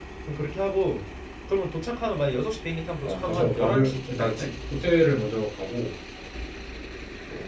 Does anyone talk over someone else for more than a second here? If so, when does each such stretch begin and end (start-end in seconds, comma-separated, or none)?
3.0-4.5